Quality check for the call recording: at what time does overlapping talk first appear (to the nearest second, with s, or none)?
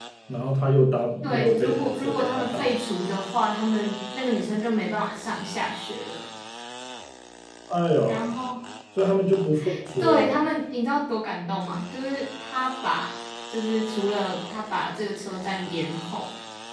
1 s